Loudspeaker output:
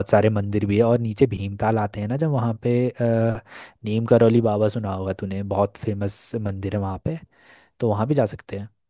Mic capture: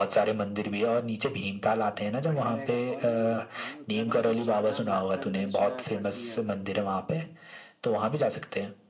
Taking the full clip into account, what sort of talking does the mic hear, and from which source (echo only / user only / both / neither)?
both